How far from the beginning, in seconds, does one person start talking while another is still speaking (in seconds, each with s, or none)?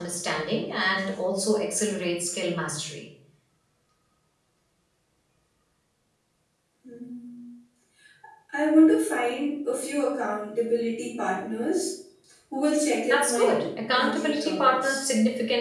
13.1 s